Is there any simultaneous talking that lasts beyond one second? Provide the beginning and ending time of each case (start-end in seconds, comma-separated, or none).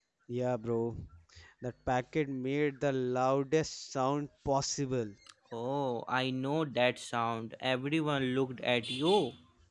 none